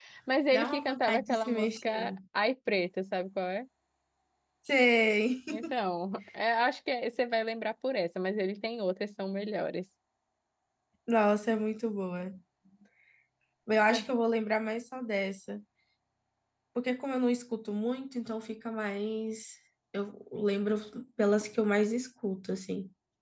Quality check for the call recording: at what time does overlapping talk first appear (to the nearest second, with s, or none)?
1 s